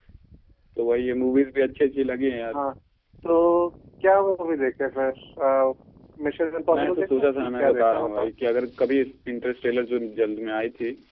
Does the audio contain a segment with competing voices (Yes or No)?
Yes